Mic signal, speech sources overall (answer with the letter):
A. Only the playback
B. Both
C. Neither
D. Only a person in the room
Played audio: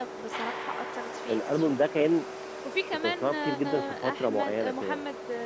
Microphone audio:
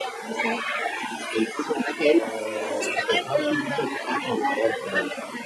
B